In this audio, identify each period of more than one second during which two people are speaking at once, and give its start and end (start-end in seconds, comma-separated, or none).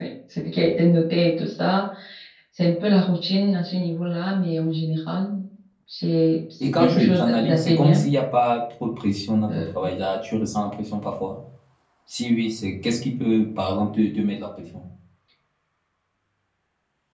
6.6-8.0